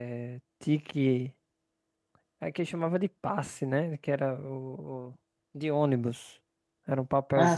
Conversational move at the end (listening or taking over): listening